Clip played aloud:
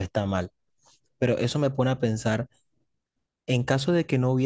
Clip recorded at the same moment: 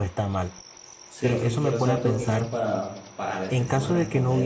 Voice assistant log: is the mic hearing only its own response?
No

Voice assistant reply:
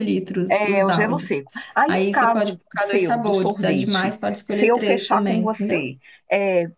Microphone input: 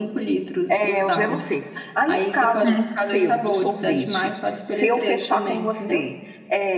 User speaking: Yes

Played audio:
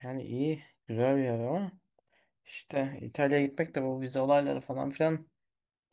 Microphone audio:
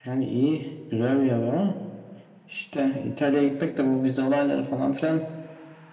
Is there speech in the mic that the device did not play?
No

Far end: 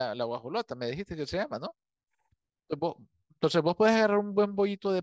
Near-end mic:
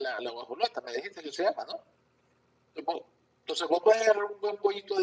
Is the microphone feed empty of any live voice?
Yes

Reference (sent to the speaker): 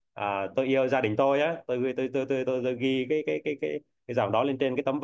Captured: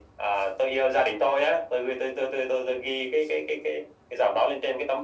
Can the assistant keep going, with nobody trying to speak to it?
Yes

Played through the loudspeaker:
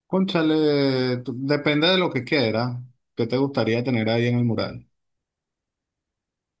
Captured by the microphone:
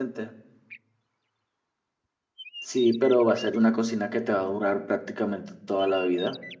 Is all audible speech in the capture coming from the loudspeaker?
No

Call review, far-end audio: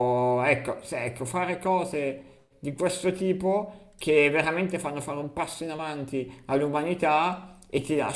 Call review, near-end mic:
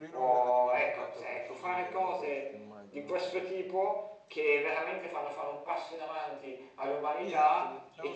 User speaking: Yes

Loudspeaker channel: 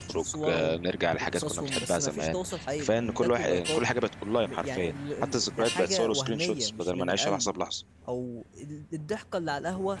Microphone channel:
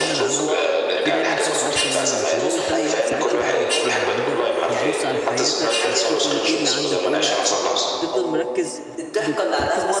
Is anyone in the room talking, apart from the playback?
Yes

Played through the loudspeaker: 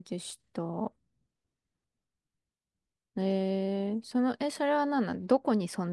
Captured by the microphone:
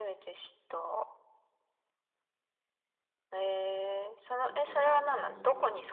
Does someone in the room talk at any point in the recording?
Yes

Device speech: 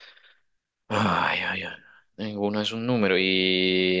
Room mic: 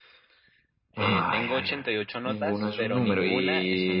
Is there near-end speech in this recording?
Yes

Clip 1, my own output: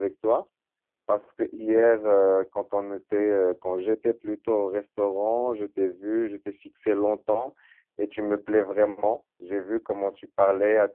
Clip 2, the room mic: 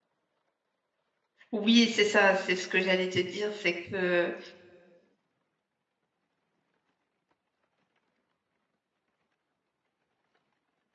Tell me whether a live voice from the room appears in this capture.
Yes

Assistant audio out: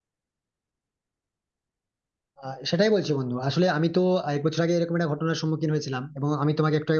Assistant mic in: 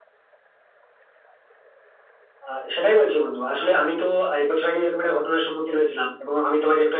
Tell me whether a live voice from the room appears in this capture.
No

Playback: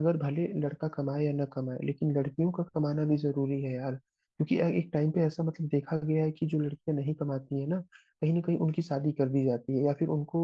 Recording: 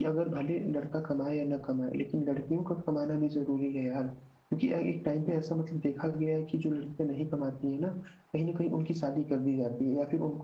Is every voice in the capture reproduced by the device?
Yes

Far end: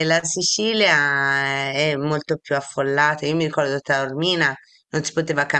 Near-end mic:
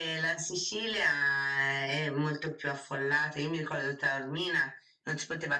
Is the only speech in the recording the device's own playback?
Yes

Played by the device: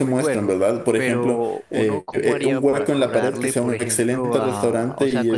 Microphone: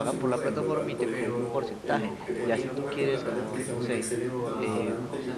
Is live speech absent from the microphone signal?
No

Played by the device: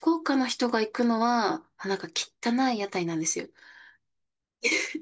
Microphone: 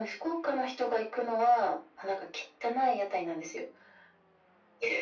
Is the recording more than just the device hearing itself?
No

